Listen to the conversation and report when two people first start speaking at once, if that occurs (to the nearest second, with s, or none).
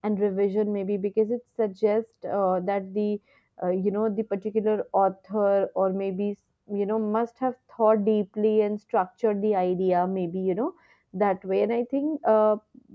none